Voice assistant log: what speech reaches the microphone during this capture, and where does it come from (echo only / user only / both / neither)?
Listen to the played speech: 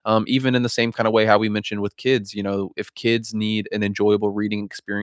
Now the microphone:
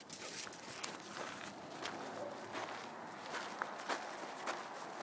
neither